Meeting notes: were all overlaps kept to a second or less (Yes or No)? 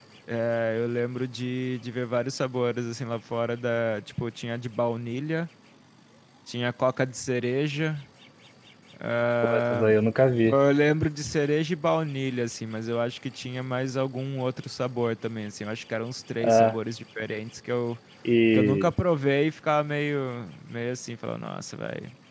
Yes